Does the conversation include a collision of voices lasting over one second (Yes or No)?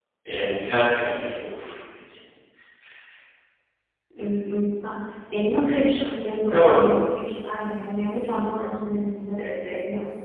No